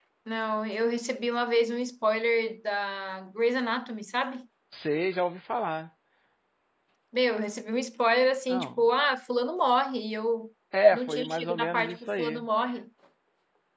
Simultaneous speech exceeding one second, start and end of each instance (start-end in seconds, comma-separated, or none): 10.9-12.4